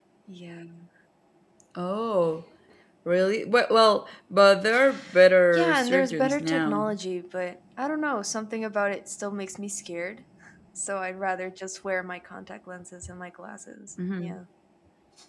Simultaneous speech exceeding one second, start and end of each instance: 5.5-6.8

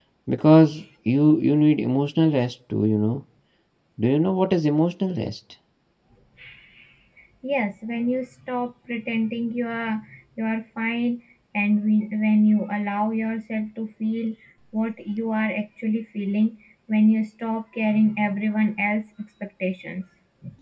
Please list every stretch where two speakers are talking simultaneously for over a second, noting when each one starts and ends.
none

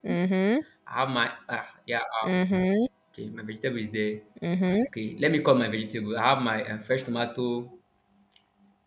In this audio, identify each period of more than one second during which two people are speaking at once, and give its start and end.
none

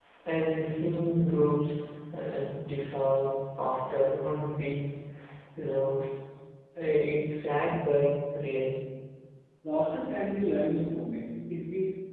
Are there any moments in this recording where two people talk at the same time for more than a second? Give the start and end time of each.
none

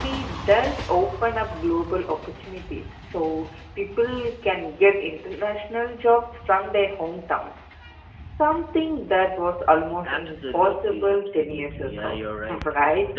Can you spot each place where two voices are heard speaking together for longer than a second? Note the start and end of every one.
10.0-12.2

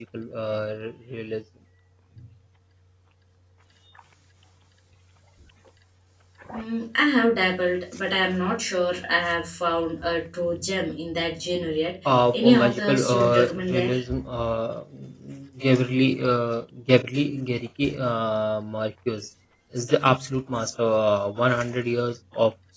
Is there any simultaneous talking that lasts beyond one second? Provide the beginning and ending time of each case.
12.1-13.9

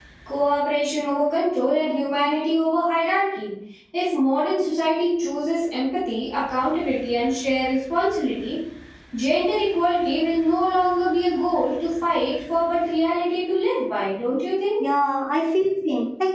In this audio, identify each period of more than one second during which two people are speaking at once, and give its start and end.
none

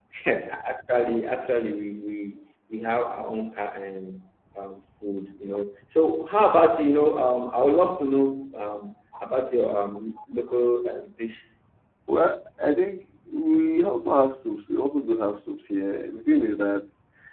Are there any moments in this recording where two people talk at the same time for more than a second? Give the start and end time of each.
none

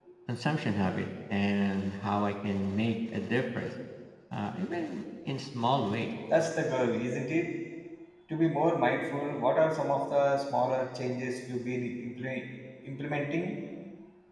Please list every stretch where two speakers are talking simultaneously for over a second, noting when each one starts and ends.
none

